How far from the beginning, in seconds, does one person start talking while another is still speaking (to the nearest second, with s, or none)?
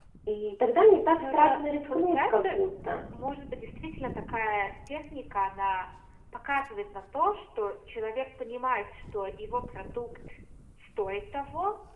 1 s